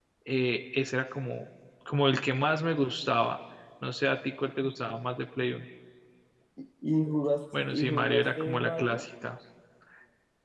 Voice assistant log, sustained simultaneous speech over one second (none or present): present